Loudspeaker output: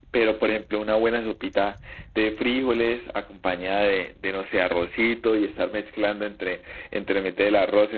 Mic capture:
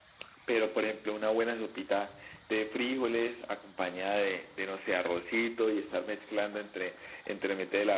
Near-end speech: none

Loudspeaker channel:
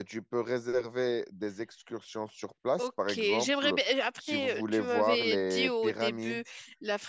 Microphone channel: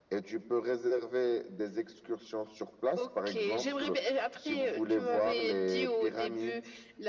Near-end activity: none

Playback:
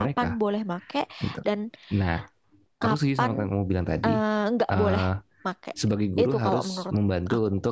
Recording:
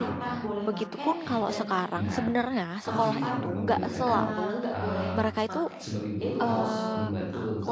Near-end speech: present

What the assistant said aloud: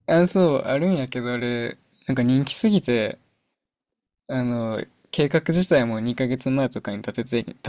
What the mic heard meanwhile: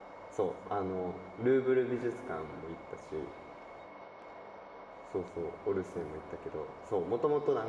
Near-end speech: present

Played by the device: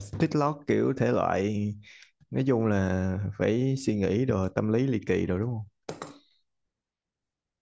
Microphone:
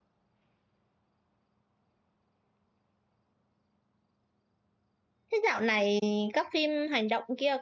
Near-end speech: present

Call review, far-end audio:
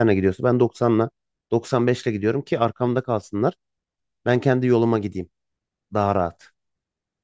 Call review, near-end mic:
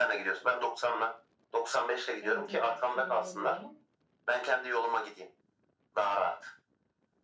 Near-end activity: present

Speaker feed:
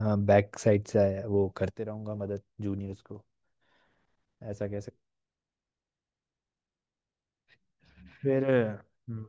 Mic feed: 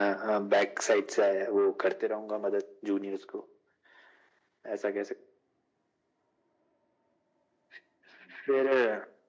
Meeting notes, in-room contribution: none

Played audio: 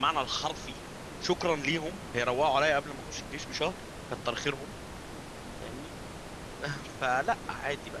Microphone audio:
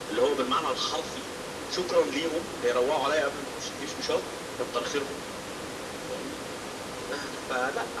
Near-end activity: none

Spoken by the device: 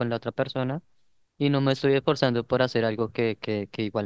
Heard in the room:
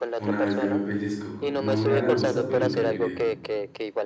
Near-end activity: present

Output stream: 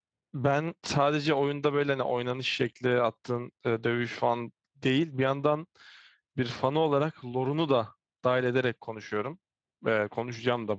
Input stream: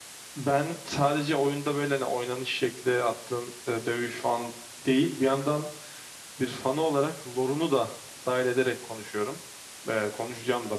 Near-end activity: none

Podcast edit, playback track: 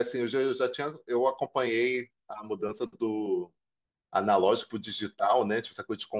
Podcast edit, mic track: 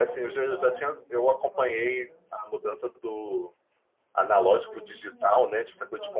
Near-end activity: present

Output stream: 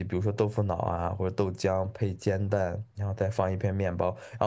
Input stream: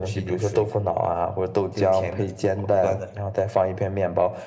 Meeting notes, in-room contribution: present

